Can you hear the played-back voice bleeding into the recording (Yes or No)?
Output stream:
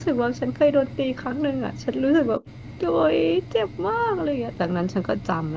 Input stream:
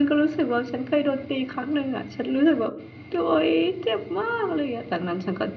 Yes